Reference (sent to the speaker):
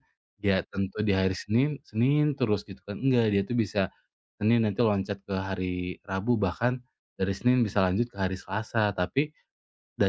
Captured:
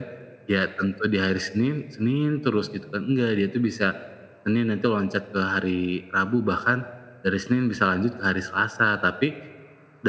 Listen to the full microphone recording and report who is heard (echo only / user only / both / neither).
echo only